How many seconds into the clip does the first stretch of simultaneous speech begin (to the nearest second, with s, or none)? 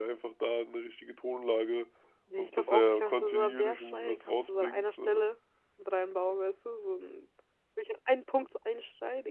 2 s